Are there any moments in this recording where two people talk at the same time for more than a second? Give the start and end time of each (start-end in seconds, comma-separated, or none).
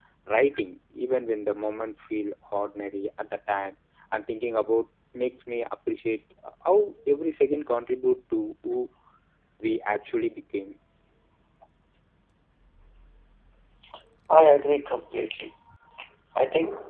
none